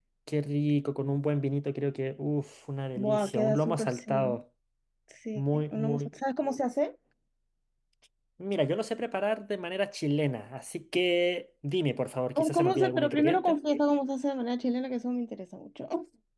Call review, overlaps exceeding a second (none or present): present